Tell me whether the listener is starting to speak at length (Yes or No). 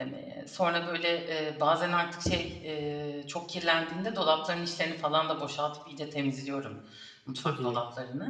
No